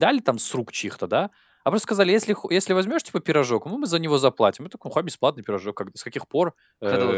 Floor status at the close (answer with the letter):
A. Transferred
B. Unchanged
B